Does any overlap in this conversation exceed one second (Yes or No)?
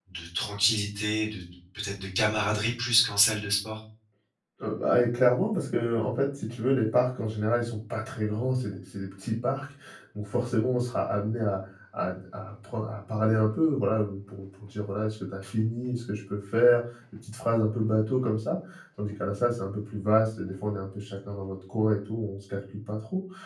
No